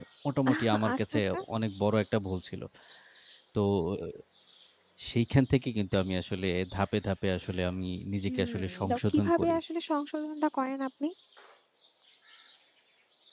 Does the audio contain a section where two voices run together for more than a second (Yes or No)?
Yes